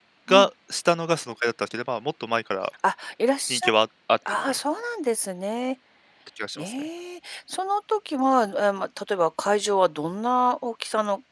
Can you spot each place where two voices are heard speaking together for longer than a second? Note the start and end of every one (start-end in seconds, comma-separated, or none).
none